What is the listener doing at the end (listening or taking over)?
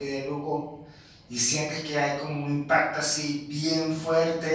listening